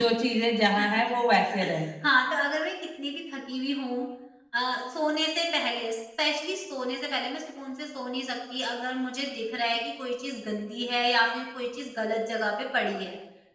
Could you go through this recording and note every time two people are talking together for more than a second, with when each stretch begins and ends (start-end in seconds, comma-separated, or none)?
none